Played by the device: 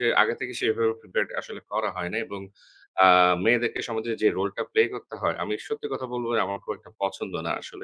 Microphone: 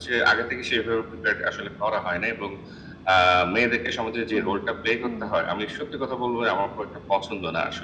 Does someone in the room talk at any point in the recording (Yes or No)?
Yes